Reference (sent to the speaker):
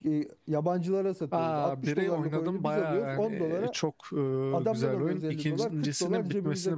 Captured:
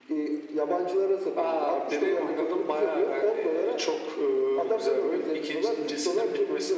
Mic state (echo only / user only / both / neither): echo only